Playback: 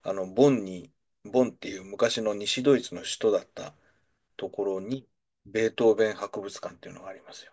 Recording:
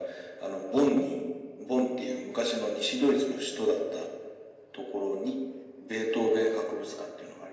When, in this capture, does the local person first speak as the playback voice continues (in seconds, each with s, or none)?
none